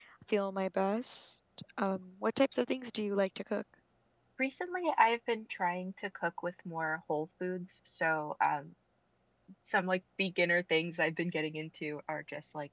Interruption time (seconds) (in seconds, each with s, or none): none